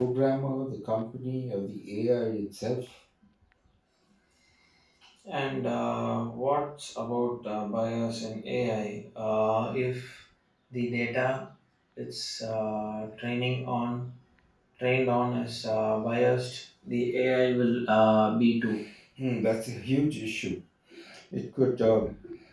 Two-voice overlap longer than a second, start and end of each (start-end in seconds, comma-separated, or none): none